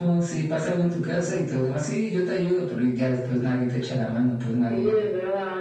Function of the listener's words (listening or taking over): taking over